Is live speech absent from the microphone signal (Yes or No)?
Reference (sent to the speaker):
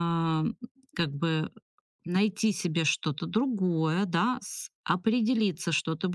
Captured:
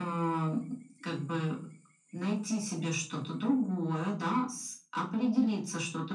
Yes